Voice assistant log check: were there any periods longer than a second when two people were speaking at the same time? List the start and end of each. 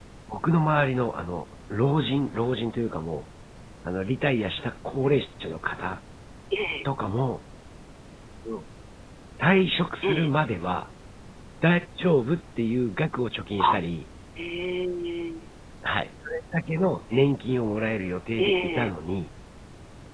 none

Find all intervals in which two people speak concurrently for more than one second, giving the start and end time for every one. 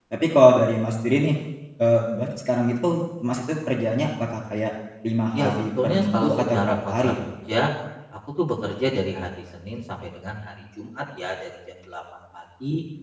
5.3-7.1

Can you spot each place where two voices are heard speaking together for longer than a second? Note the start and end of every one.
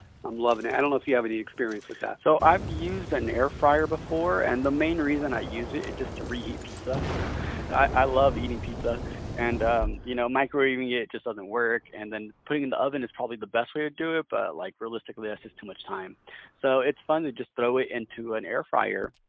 none

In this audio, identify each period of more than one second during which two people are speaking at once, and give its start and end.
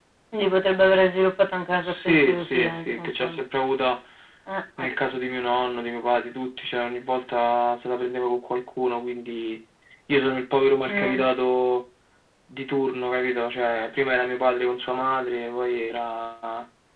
1.8-3.4

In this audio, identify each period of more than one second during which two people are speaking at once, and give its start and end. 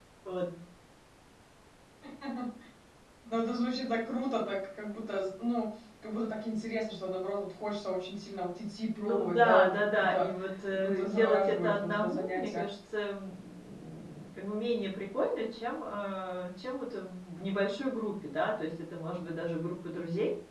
9.0-10.3, 10.7-12.7

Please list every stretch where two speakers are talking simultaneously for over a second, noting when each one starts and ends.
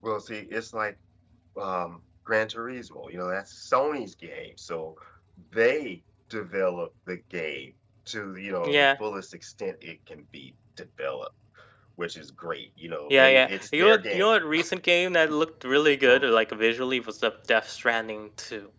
13.1-14.3

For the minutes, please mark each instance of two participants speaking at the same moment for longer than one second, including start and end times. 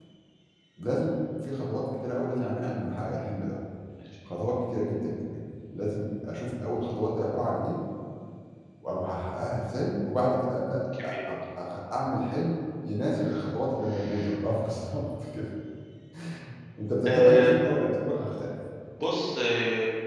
none

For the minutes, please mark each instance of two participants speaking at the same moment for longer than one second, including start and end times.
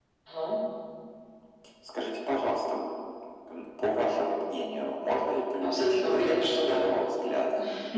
5.6-6.8

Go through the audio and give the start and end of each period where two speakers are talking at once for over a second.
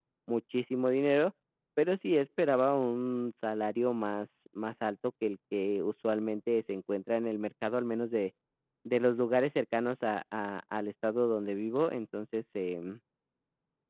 none

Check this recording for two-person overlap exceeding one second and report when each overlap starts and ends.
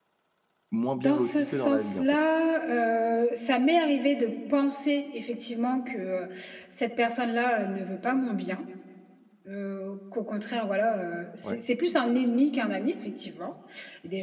0.9-2.2

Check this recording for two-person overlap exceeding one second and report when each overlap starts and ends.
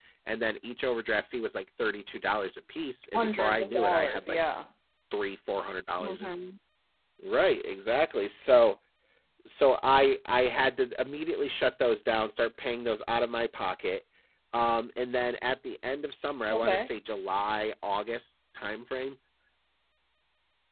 3.1-4.4

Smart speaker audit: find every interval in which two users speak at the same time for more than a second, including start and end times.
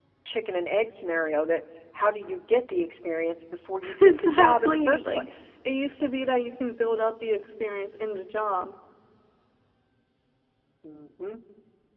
4.0-5.3

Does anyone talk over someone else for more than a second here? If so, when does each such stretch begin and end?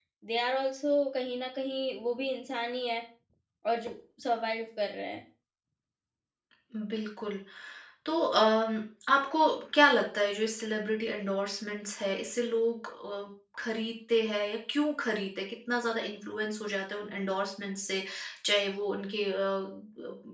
none

